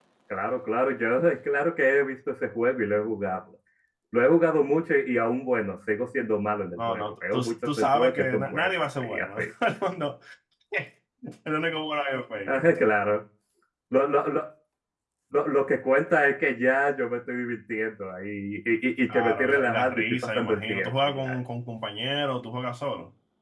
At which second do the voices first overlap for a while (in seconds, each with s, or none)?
6.8 s